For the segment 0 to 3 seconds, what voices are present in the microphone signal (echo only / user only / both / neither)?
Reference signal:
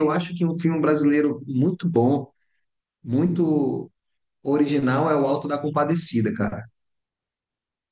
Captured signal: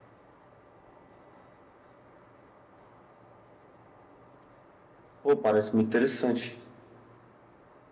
neither